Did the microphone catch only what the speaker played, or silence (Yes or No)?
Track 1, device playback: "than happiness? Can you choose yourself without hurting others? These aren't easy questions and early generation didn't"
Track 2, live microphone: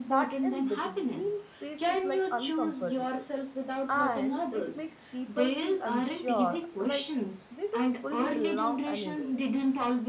No